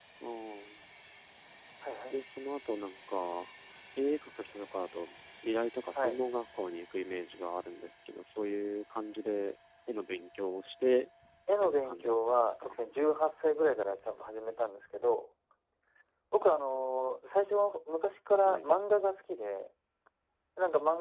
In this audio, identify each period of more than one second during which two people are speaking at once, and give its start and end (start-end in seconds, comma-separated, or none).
11.5-12.8